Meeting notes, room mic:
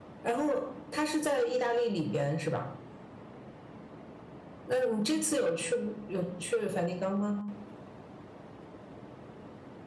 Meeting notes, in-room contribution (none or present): none